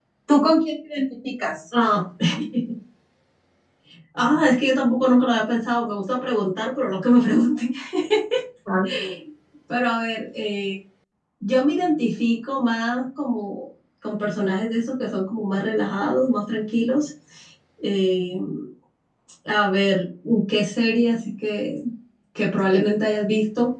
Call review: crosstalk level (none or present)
none